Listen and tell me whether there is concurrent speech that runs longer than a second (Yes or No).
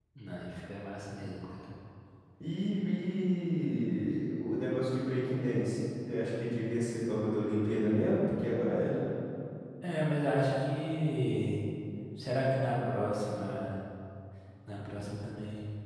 No